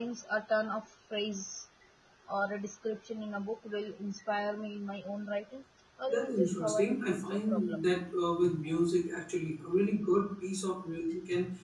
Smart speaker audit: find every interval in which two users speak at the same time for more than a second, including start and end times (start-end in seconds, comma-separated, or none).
6.1-7.9